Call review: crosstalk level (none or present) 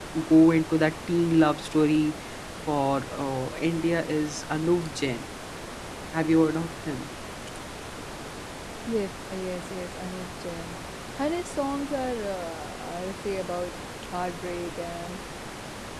none